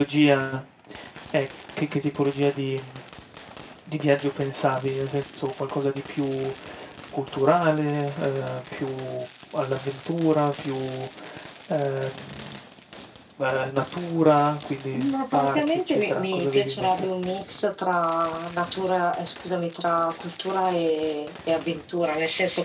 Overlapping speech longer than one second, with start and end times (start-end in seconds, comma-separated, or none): 14.9-17.1